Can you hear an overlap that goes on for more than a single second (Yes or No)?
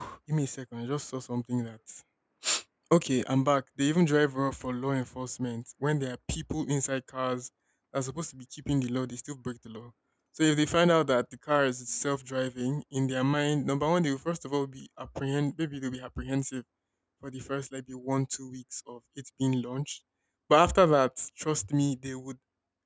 No